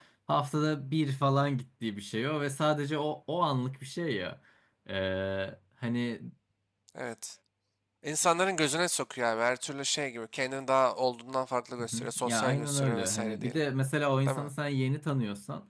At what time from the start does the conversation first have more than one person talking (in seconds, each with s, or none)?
11.8 s